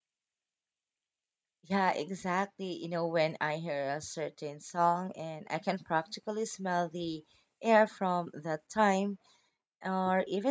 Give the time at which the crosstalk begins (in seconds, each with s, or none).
none